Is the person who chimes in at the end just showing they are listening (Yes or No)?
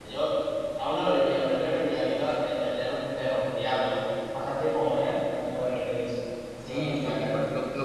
No